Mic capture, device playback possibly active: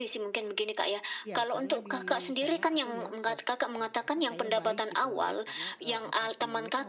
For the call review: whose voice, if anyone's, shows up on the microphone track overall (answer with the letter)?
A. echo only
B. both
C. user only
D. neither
B